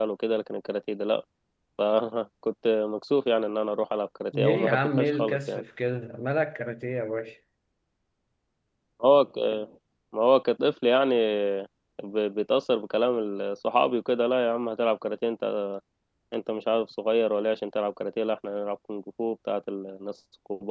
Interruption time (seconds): 4.3 s

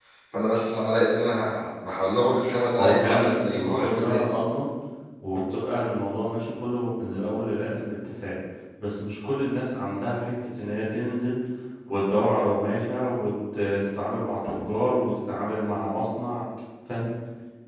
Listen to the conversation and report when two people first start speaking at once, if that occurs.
2.8 s

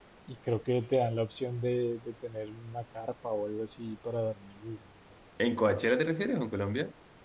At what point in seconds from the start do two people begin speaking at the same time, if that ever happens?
none

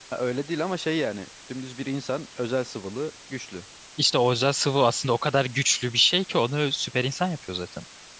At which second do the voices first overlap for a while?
none

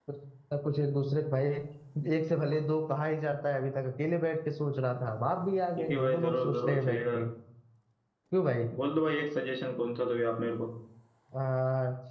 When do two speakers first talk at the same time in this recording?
5.8 s

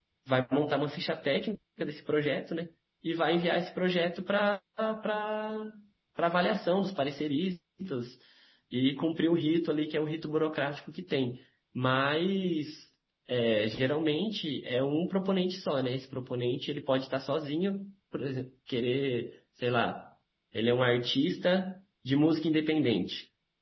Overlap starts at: none

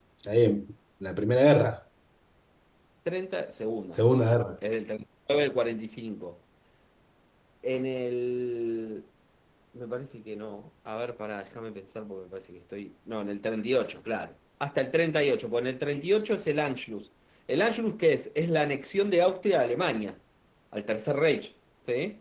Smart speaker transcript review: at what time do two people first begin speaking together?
none

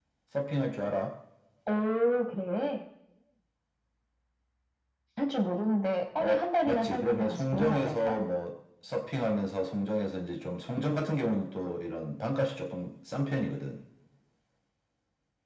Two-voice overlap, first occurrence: 6.2 s

